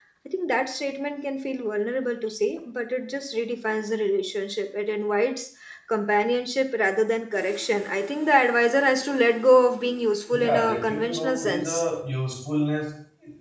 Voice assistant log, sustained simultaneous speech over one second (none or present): present